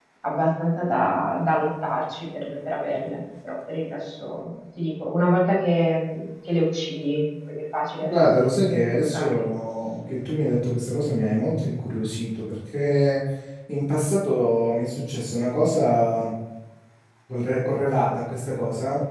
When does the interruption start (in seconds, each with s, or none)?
8.0 s